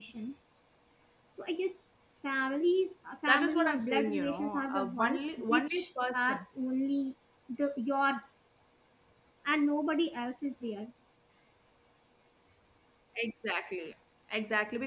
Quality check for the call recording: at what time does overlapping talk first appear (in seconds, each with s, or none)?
3.3 s